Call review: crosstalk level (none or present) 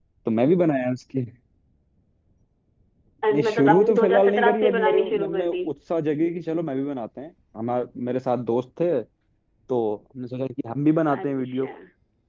present